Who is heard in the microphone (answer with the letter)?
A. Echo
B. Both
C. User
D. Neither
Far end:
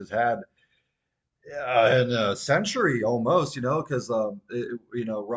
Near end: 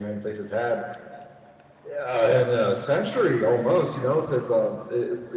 A